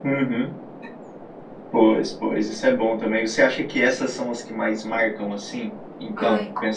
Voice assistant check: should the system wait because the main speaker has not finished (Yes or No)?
No